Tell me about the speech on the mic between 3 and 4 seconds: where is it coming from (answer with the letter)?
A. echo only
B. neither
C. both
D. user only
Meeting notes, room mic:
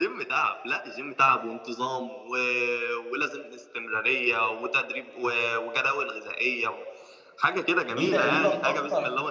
A